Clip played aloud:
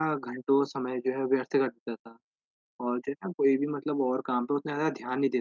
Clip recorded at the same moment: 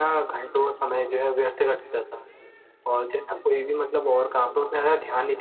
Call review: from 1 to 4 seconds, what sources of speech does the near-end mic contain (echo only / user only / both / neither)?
echo only